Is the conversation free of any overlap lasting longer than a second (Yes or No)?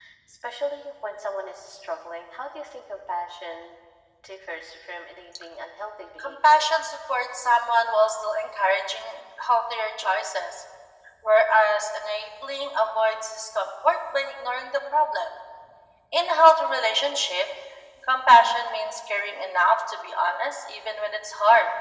Yes